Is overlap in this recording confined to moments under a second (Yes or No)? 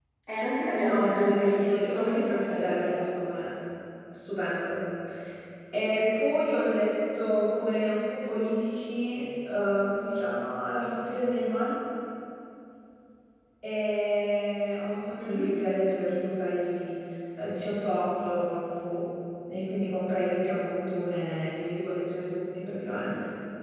No